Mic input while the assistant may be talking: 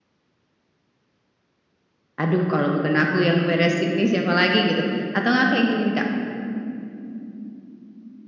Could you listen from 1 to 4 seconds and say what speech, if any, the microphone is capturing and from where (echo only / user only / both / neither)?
user only